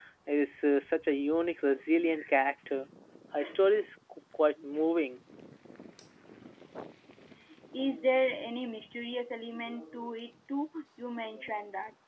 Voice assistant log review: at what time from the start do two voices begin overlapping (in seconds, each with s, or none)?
none